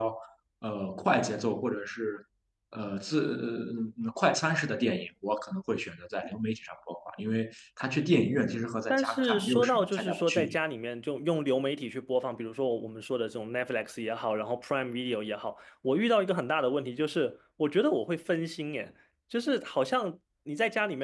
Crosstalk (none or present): present